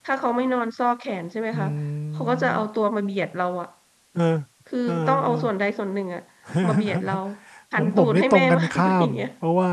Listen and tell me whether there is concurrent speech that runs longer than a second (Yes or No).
Yes